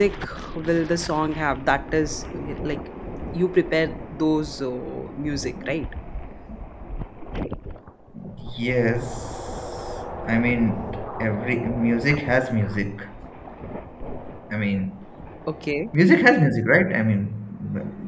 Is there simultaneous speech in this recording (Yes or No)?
No